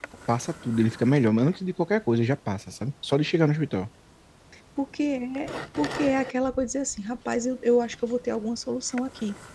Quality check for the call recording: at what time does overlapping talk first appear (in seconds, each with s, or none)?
none